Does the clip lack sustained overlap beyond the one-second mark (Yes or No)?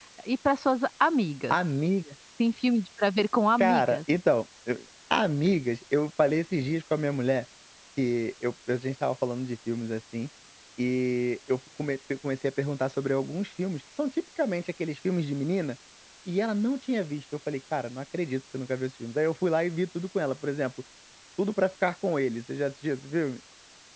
Yes